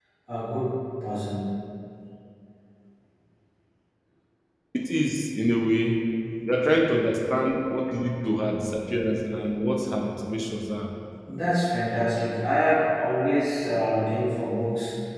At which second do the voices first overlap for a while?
none

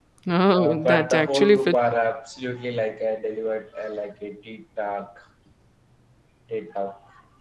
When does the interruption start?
0.5 s

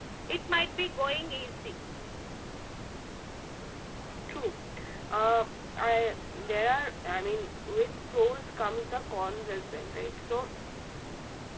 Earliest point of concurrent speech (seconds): none

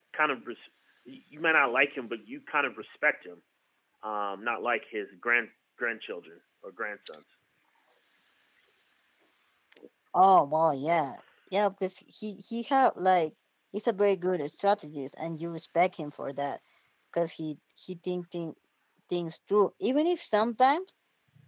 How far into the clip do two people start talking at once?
none

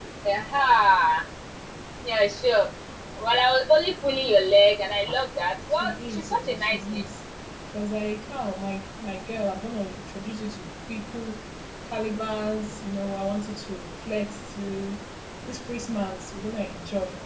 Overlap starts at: 5.7 s

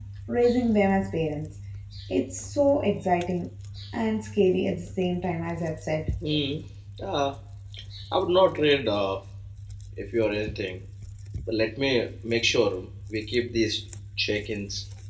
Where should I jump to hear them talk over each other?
none

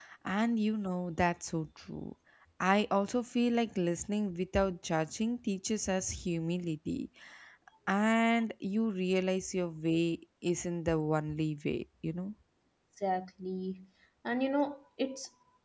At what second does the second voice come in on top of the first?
none

